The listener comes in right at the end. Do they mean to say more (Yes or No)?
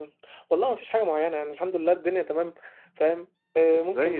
Yes